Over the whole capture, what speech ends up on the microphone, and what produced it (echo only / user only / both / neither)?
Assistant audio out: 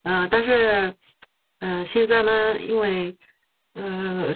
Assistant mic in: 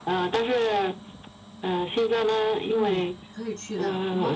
both